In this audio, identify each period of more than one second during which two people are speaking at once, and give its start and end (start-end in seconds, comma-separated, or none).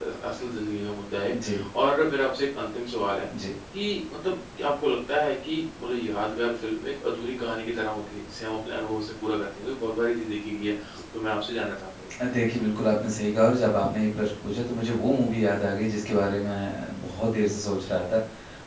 none